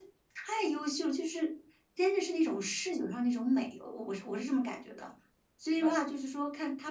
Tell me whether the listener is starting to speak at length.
No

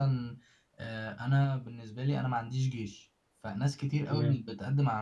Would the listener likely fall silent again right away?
Yes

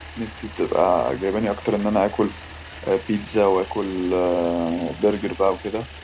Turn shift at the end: No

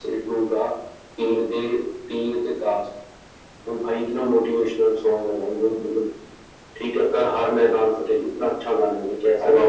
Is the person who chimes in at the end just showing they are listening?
No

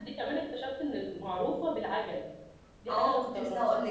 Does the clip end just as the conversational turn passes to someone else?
Yes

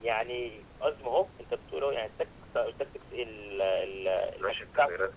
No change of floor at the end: No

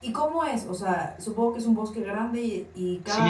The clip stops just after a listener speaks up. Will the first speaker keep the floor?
No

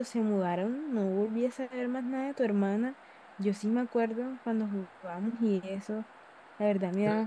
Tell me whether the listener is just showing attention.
Yes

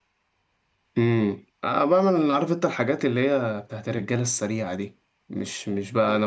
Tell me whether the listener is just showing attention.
Yes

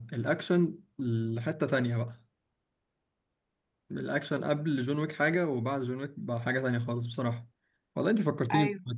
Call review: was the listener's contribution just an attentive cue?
Yes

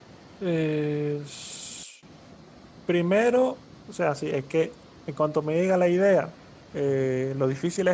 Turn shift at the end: No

